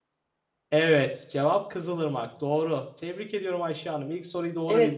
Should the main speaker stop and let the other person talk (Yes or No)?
Yes